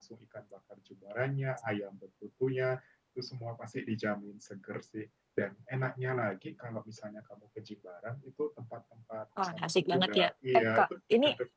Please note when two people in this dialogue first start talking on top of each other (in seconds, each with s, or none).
9.4 s